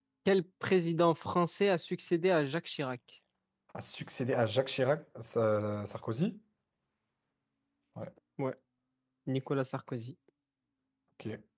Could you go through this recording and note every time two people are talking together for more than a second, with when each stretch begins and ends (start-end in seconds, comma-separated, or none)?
none